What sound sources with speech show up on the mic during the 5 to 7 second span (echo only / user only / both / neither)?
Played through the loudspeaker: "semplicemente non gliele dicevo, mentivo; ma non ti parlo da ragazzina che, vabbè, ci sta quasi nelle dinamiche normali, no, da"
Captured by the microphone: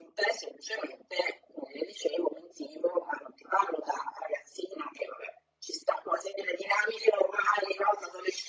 echo only